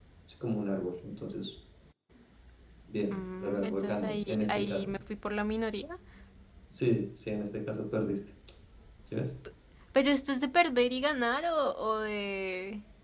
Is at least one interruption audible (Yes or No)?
Yes